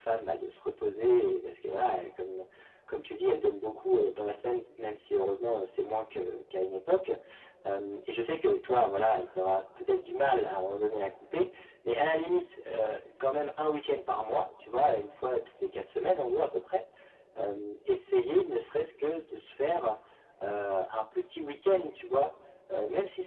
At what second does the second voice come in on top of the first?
none

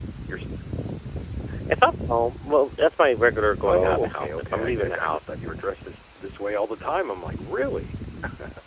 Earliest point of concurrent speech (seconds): 3.7 s

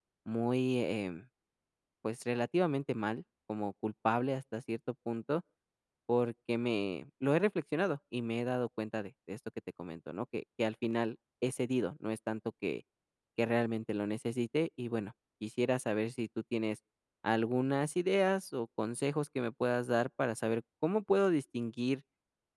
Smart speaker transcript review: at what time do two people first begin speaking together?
none

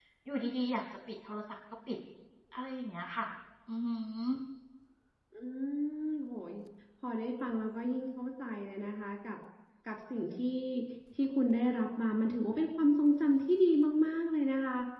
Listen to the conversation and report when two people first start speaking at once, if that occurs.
none

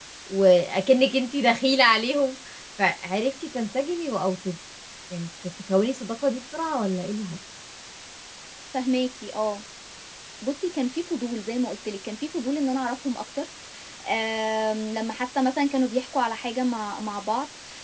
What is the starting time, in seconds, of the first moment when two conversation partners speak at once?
none

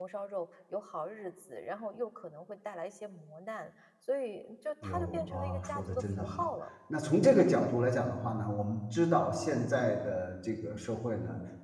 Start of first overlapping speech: 4.8 s

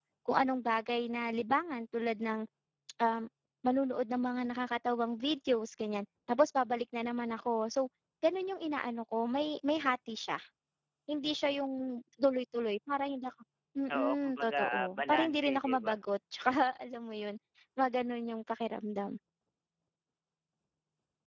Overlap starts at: 13.9 s

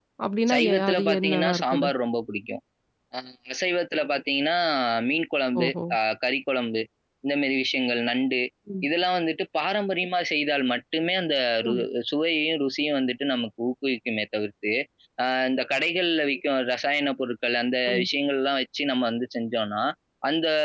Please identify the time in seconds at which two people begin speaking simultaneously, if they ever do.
0.5 s

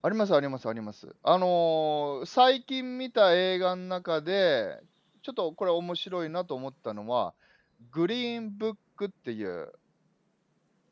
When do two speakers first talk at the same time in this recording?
none

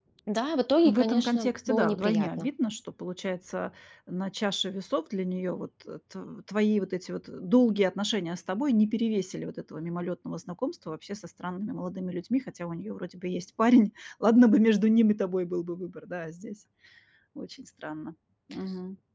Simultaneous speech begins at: 0.8 s

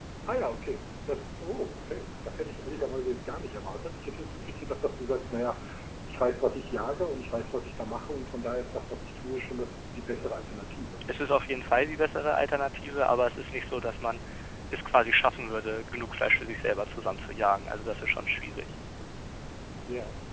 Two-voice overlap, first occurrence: none

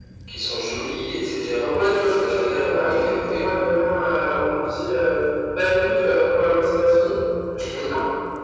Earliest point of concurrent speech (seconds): 1.7 s

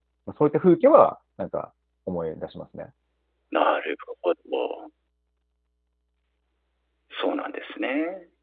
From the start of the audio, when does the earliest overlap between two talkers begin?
none

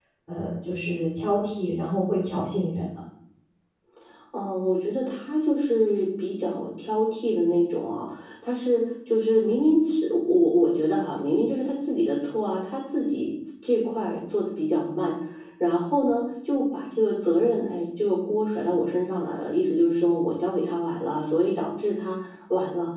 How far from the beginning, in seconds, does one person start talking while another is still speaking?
none

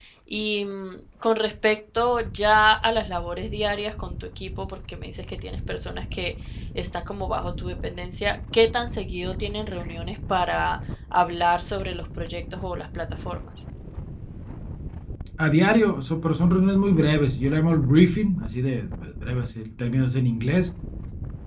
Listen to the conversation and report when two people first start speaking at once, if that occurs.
none

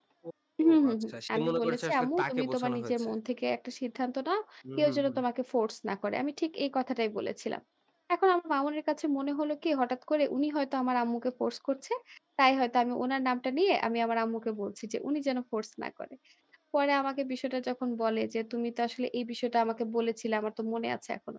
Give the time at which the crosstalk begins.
0.6 s

